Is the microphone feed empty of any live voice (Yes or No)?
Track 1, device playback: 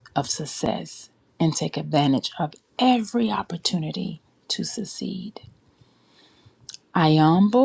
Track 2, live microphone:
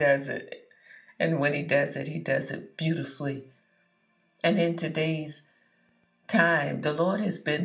No